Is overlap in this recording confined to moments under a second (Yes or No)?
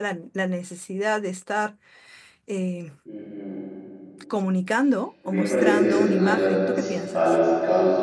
No